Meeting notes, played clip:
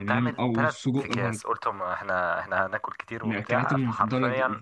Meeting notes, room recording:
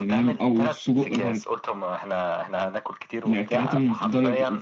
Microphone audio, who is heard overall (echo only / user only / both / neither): echo only